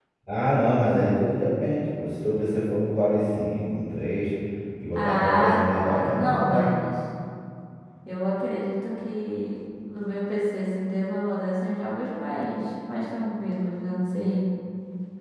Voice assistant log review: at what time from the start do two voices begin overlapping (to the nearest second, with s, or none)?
5 s